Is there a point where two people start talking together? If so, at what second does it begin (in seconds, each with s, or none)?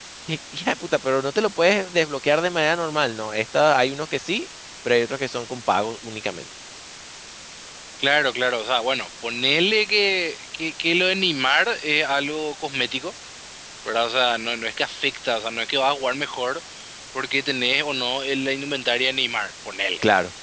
none